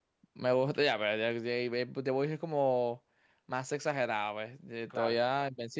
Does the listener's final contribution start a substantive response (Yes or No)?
No